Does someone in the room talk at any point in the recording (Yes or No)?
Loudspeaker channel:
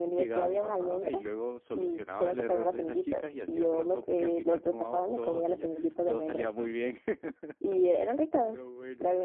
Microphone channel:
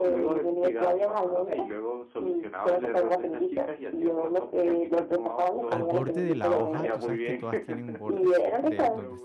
Yes